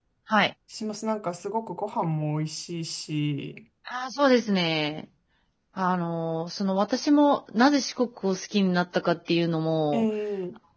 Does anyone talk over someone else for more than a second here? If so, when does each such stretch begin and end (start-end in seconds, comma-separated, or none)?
none